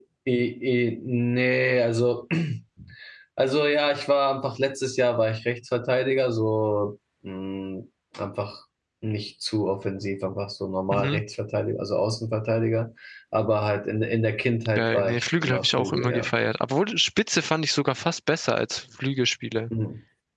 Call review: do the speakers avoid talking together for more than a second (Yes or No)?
No